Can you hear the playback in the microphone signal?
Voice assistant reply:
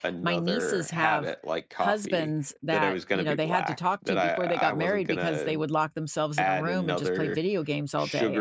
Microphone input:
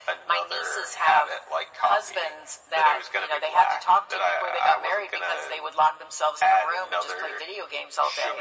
Yes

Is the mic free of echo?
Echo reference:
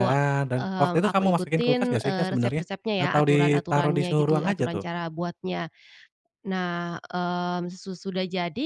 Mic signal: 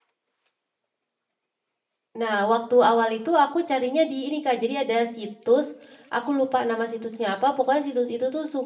Yes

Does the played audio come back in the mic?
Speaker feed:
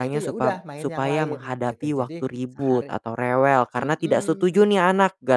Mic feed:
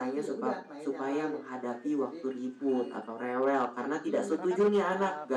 Yes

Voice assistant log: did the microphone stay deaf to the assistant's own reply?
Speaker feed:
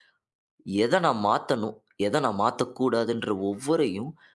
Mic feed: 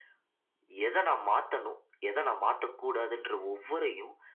No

